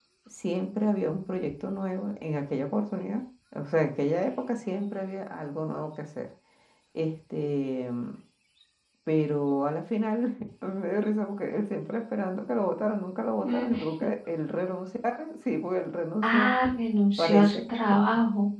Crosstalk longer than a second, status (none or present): none